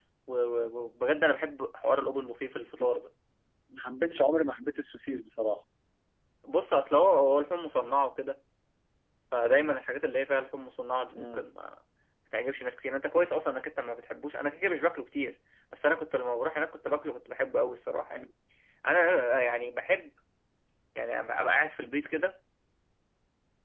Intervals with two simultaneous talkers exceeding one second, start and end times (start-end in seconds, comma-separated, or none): none